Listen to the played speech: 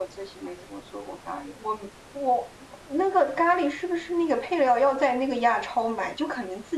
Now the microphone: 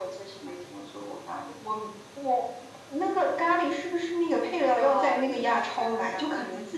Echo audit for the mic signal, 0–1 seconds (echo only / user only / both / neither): echo only